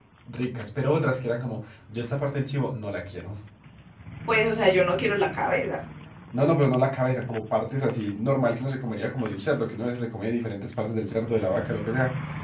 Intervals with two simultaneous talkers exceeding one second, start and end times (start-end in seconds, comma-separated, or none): none